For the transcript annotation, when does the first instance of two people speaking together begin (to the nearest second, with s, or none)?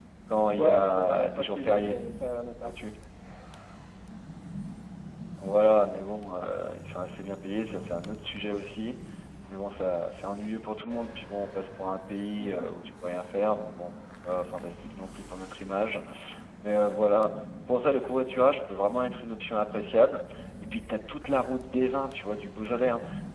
1 s